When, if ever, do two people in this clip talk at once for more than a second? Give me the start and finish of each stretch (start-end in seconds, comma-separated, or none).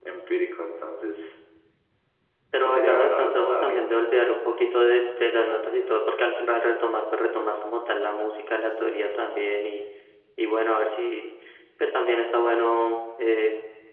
2.5-4.1